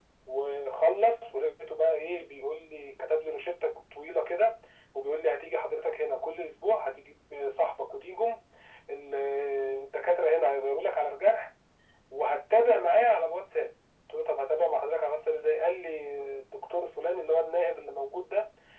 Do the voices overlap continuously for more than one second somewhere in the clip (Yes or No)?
No